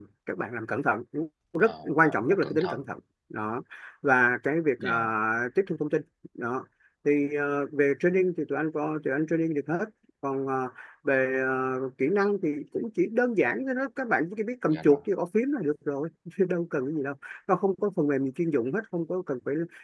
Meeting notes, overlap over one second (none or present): present